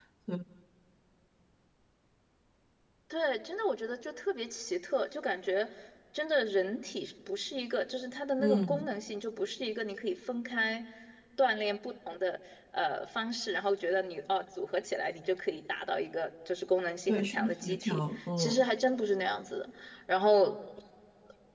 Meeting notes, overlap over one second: present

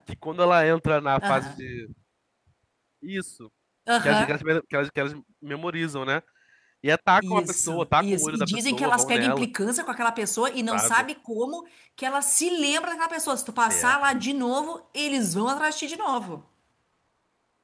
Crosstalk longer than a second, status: present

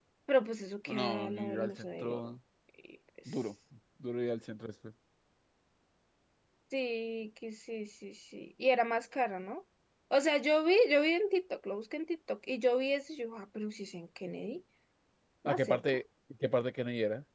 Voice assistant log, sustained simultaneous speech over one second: present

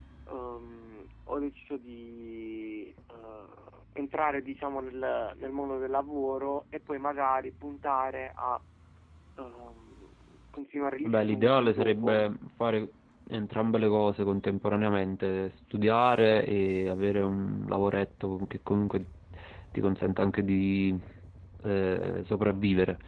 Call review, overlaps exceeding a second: present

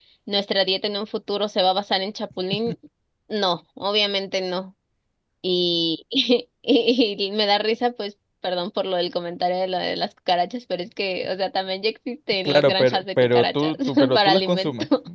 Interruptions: present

